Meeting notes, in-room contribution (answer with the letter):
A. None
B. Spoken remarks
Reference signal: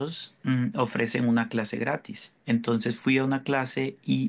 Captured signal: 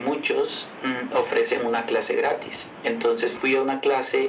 A